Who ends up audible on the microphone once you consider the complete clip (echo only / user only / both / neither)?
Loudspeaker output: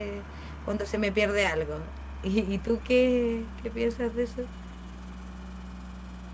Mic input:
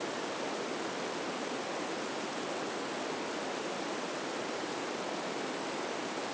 neither